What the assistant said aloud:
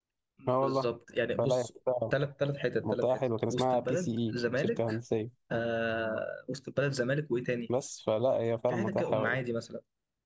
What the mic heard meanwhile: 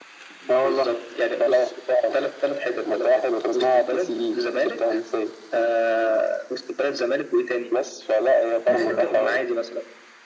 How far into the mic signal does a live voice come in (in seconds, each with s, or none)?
8.7 s